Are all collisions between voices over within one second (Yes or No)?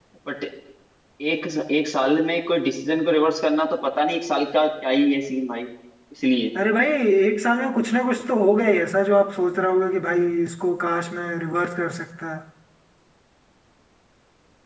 Yes